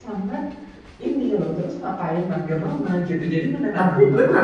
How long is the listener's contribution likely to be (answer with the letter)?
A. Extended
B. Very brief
A